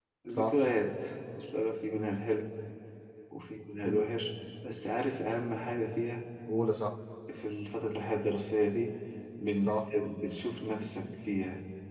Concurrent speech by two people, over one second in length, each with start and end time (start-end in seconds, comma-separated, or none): none